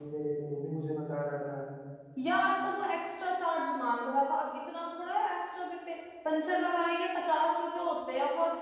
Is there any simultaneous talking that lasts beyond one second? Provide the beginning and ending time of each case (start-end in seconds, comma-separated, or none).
none